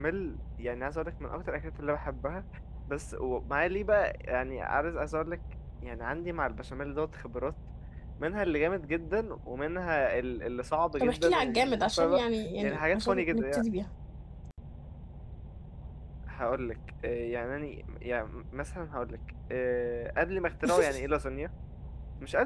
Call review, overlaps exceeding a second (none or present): present